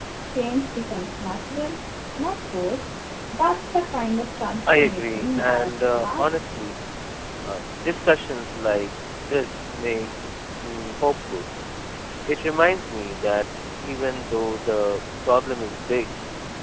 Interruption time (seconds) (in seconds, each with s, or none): 4.7 s